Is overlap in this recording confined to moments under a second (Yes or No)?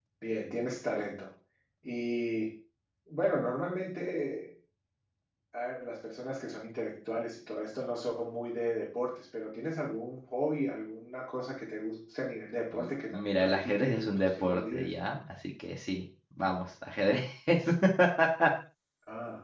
No